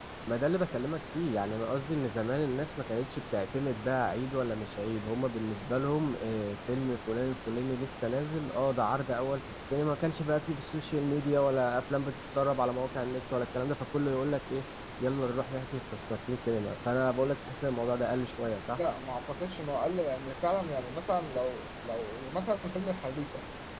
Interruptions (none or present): none